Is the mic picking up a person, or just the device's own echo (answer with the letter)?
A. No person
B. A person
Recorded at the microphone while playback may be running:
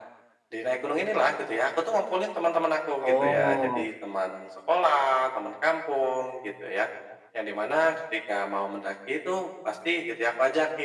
B